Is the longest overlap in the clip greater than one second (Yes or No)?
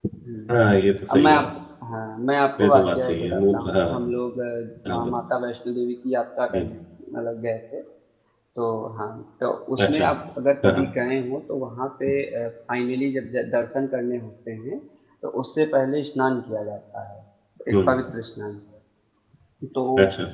Yes